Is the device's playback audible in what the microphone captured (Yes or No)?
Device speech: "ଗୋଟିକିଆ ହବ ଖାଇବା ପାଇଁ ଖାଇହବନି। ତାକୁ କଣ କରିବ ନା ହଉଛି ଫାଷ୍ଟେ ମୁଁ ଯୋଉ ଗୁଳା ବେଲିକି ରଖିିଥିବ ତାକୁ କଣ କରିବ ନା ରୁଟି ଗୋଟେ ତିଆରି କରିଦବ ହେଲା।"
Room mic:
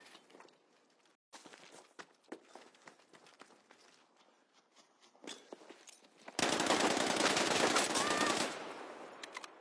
No